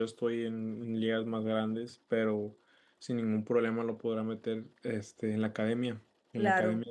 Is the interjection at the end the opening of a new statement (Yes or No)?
Yes